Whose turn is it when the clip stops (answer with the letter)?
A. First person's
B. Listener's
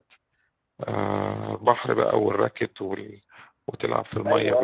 B